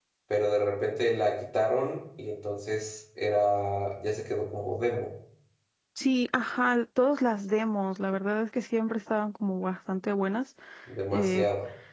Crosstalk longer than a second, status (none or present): none